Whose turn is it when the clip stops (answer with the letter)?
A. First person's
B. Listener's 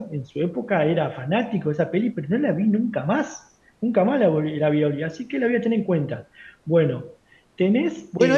B